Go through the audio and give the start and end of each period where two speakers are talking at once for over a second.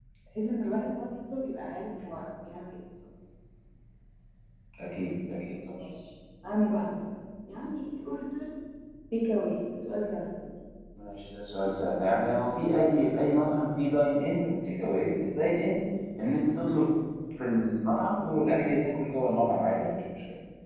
none

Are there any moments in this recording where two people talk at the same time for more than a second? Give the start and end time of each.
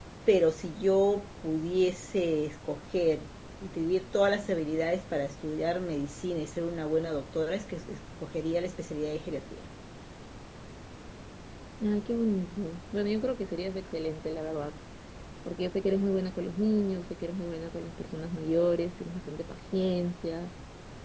none

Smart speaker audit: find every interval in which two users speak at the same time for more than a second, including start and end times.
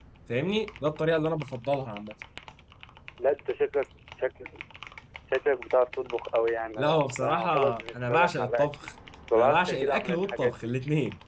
6.8-8.7, 9.3-10.7

